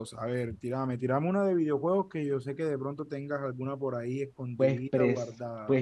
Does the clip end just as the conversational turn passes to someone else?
Yes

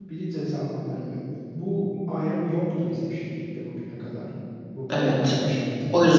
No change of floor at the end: No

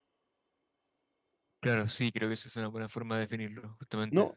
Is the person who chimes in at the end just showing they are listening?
No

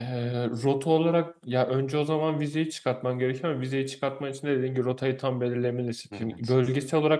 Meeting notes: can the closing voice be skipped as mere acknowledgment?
Yes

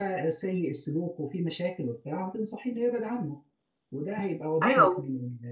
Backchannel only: Yes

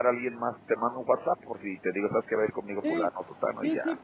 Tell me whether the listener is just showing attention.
No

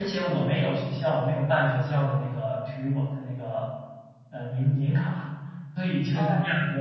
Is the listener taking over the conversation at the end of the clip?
No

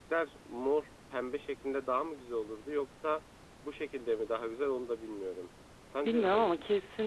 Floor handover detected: Yes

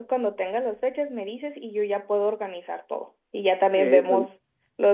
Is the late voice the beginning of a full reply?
No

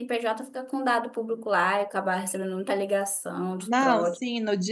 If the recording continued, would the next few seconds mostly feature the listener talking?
Yes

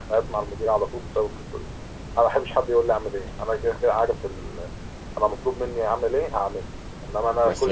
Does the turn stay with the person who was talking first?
Yes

